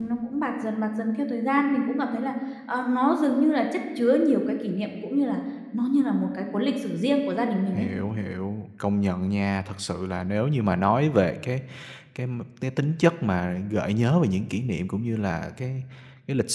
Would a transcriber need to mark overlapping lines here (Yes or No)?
No